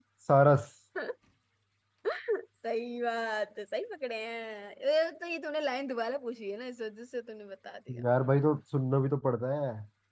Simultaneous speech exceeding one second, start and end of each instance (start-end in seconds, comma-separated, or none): none